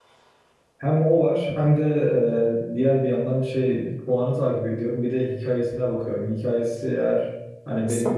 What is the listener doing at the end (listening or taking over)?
listening